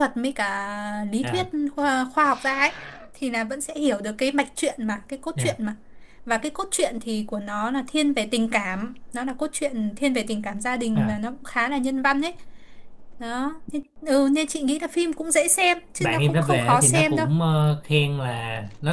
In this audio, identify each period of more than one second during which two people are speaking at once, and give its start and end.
16.0-17.3

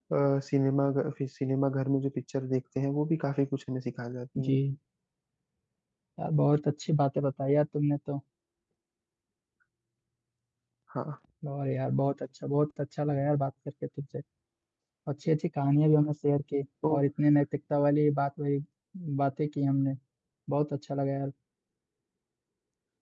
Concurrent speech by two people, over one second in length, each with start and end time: none

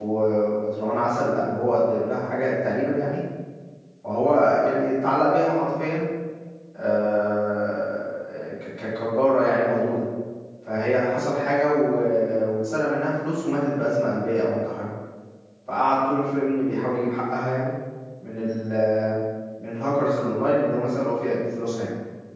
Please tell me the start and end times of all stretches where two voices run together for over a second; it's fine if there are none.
none

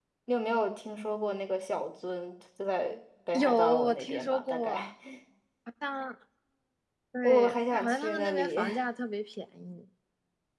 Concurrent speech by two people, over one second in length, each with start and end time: 3.3-4.8, 7.2-8.6

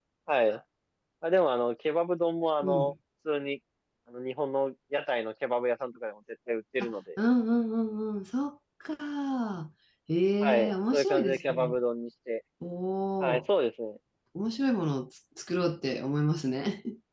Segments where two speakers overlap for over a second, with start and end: 10.4-11.8

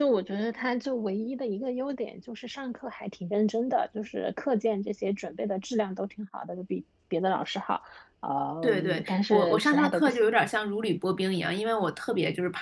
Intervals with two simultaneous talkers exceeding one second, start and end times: 8.6-10.2

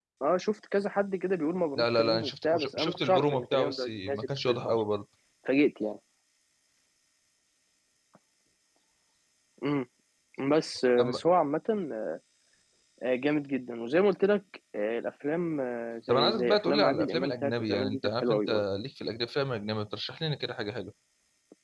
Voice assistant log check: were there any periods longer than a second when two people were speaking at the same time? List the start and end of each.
1.8-4.8, 16.1-18.6

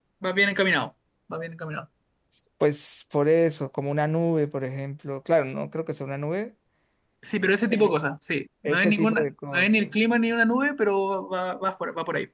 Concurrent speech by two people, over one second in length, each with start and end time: 8.6-10.0

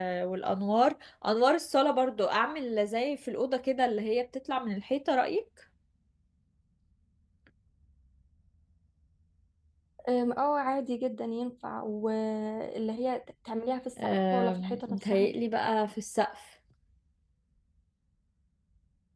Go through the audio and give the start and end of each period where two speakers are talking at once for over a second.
14.0-15.3

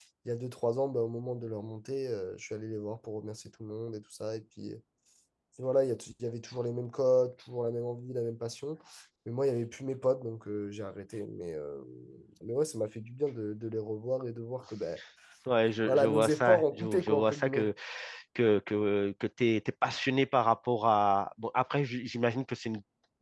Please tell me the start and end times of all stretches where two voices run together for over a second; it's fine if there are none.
15.9-17.7

